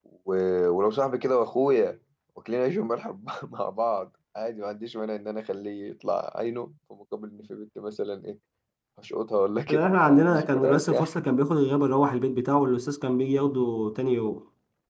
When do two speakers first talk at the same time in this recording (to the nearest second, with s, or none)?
10 s